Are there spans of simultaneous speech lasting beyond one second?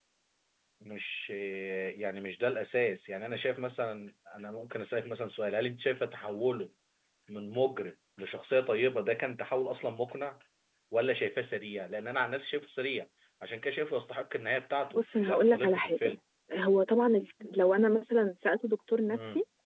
Yes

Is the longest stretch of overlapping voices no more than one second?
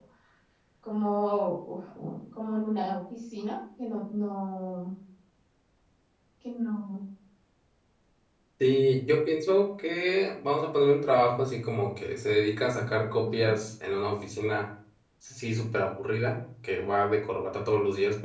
Yes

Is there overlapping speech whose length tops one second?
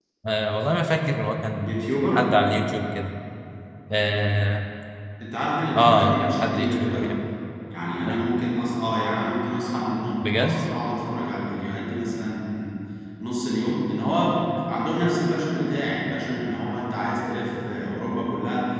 Yes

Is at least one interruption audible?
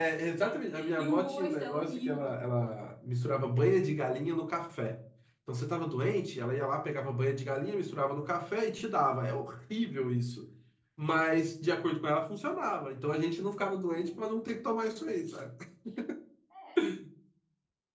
Yes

